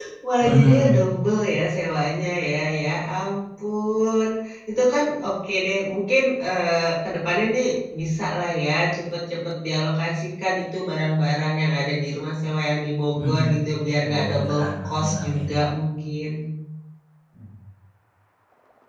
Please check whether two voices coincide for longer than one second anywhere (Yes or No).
Yes